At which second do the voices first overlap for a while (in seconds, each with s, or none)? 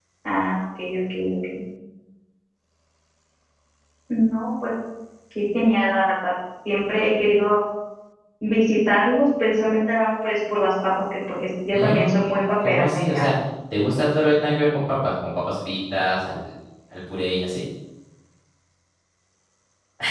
11.7 s